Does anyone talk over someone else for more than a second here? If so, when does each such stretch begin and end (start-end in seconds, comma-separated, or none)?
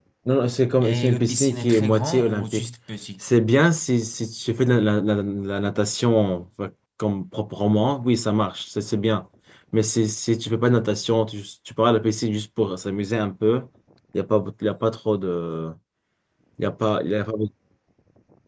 0.8-2.7